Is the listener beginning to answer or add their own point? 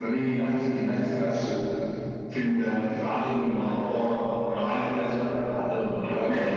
Yes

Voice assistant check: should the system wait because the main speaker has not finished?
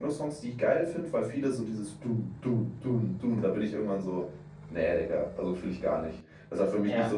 Yes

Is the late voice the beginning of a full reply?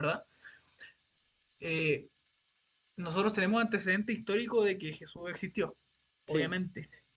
No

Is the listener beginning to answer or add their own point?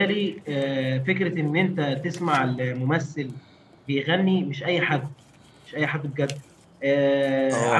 No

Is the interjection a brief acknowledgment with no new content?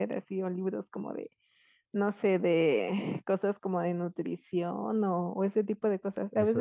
Yes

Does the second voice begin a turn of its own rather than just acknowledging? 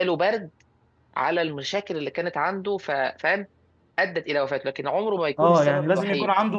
Yes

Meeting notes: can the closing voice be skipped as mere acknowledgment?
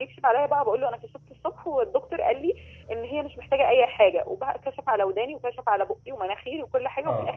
Yes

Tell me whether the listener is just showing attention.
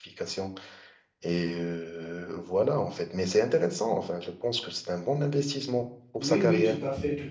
No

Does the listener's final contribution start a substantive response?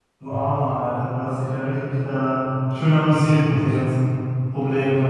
Yes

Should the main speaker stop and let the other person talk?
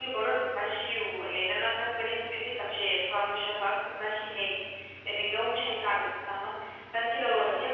No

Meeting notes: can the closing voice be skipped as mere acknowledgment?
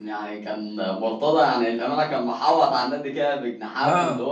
Yes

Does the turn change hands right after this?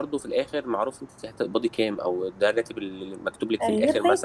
No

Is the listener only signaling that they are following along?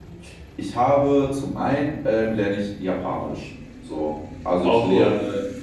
Yes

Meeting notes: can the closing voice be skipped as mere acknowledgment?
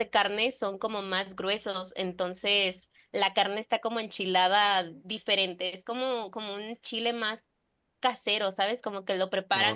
Yes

